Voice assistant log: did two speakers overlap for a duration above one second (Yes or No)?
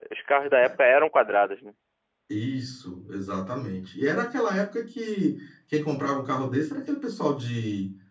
No